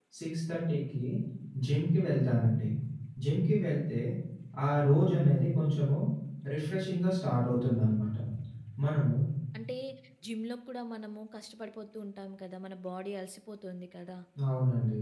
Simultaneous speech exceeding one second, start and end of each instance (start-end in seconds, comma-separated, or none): none